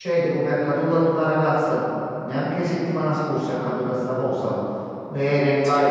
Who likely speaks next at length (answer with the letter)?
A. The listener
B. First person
B